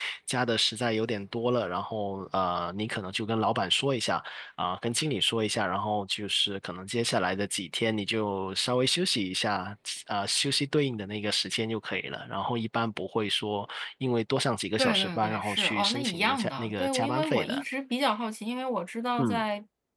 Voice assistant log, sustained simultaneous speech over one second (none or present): present